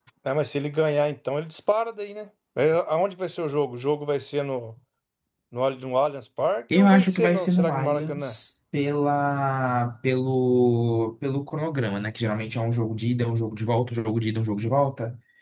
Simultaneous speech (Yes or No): Yes